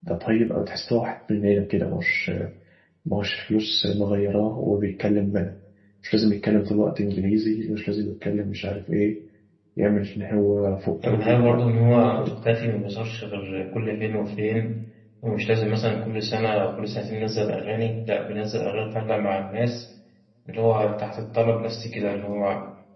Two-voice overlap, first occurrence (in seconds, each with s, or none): 11.0 s